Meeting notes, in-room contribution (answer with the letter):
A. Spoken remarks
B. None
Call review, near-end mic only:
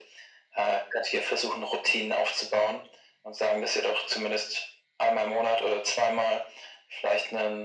B